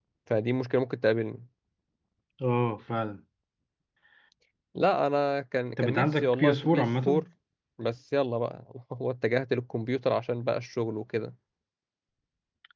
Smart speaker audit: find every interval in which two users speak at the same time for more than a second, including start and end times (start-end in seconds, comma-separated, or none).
5.8-7.2